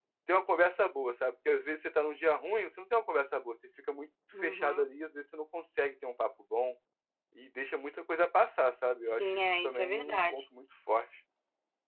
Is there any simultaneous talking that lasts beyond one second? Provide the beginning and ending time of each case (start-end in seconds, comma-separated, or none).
9.0-10.4